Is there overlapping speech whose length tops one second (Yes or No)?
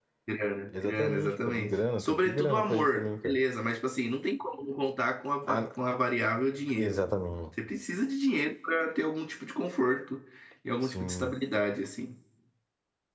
Yes